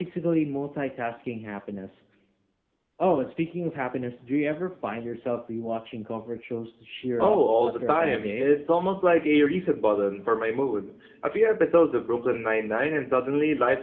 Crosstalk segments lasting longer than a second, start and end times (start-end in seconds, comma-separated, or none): 7.2-8.5